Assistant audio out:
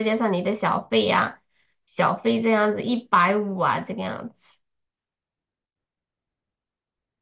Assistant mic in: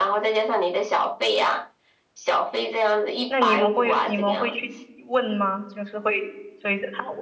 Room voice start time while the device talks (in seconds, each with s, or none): 3.3 s